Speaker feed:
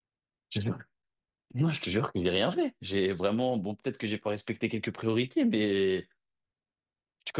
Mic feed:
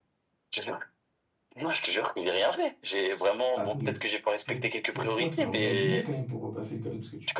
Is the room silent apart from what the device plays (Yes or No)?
No